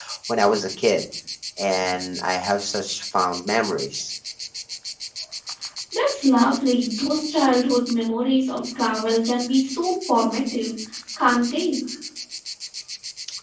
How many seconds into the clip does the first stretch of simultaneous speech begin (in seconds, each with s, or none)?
none